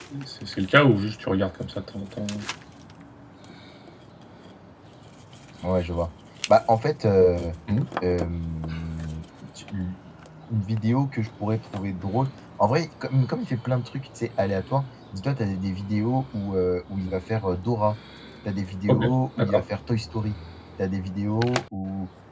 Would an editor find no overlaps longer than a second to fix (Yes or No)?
Yes